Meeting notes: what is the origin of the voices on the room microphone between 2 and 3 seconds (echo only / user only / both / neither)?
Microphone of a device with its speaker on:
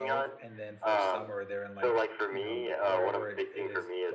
both